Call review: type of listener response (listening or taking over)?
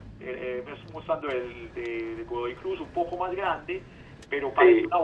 listening